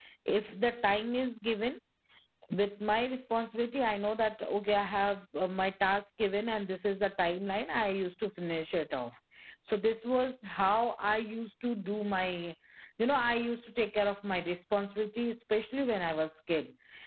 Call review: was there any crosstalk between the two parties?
No

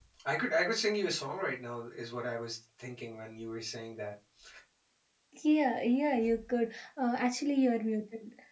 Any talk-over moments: No

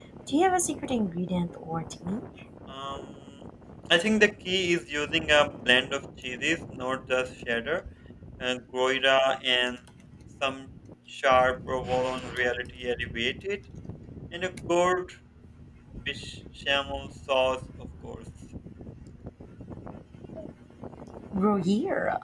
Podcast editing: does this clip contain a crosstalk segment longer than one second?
No

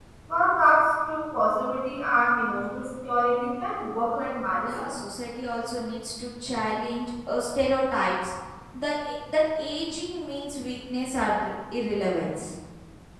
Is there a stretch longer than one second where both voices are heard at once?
No

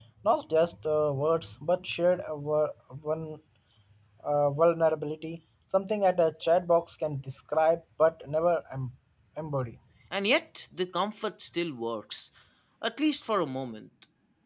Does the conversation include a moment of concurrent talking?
No

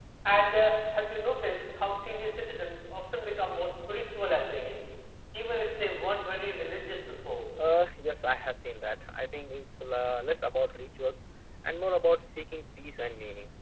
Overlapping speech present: No

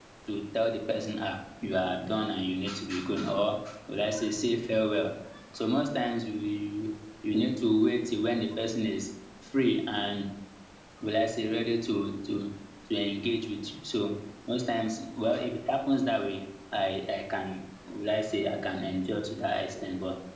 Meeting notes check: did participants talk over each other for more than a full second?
No

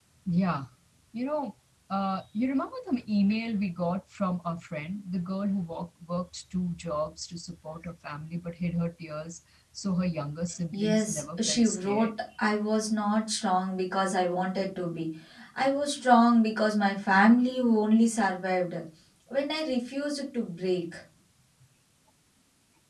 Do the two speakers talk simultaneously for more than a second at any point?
Yes, from 10.7 s

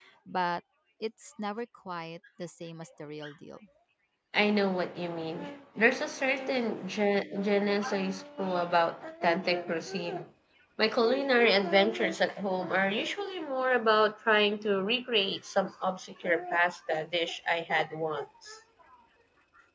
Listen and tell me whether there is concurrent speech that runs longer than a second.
No

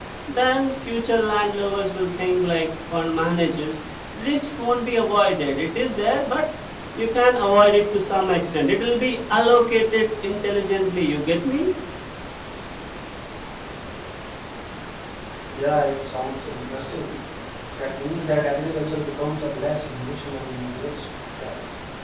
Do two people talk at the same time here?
No

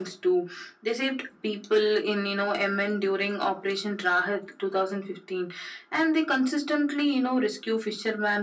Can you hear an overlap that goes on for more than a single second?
No

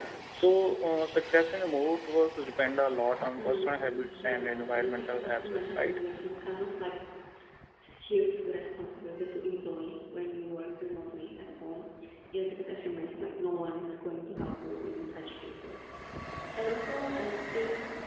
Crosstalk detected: Yes, from 3.4 s

